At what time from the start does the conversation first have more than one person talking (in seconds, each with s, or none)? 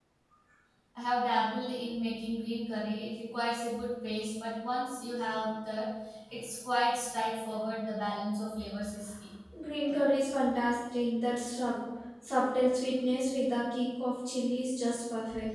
none